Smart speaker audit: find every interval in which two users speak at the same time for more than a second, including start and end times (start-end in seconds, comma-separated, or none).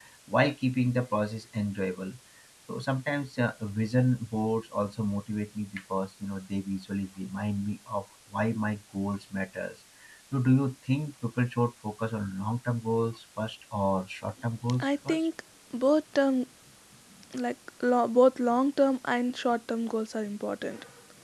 none